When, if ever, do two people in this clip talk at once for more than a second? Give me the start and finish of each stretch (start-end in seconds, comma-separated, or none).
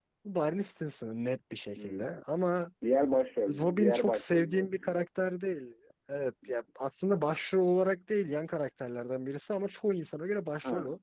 3.5-5.0